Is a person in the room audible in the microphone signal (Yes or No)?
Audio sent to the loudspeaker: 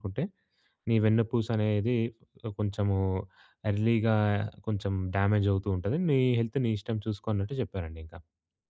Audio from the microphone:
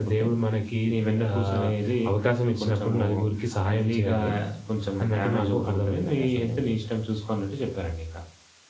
Yes